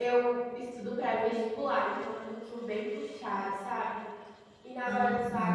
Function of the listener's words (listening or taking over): listening